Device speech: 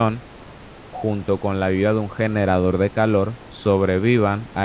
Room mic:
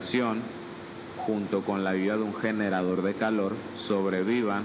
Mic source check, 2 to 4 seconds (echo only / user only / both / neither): echo only